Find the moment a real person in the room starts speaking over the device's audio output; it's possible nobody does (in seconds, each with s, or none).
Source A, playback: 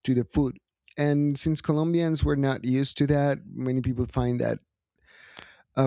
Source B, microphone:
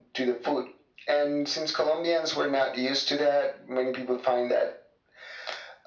none